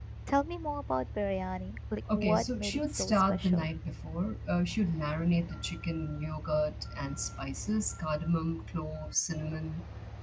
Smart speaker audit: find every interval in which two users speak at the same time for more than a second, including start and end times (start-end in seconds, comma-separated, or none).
2.1-3.7